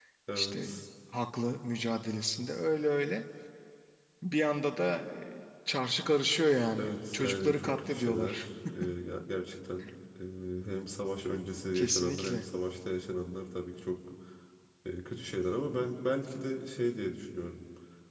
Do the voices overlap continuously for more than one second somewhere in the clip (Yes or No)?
Yes